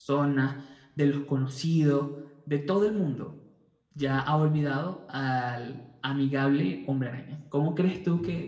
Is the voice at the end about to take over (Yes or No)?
No